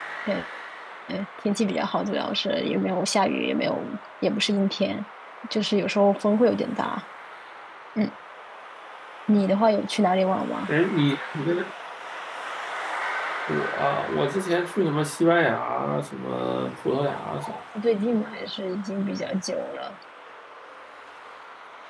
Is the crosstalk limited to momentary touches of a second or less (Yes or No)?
Yes